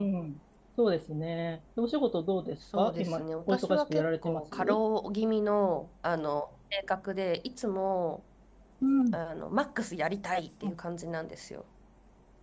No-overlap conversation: No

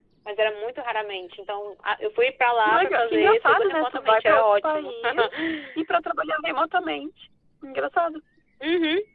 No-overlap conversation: No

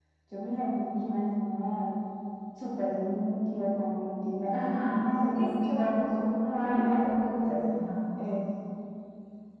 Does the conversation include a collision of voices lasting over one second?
Yes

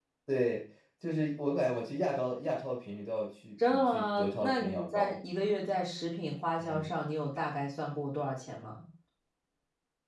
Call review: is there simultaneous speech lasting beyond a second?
Yes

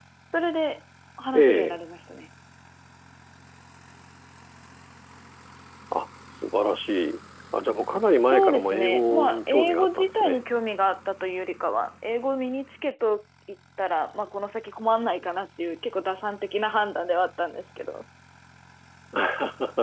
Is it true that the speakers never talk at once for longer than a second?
No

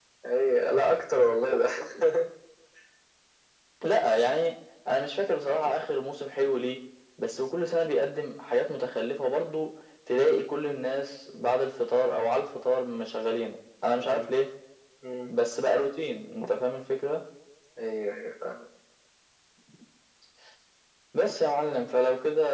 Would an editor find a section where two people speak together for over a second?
No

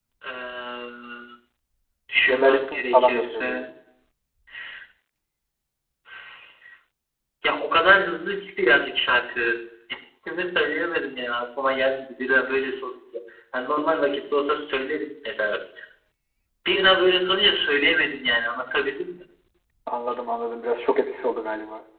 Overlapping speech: Yes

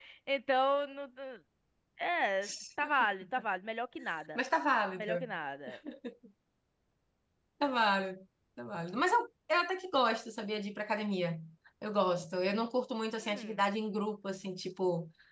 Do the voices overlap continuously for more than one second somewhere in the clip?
No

